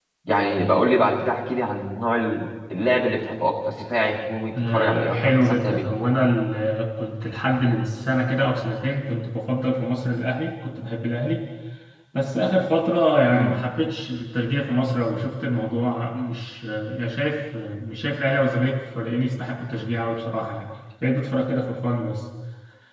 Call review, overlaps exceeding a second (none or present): present